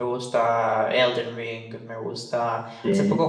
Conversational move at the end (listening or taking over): listening